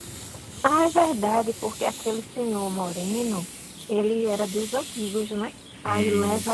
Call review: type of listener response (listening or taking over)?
listening